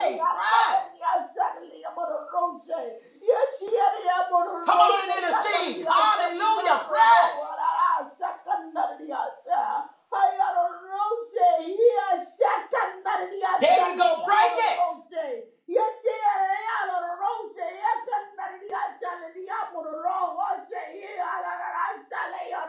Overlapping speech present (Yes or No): Yes